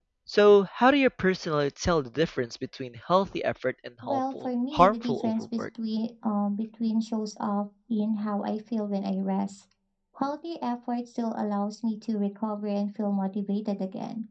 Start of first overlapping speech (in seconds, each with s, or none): 4.0 s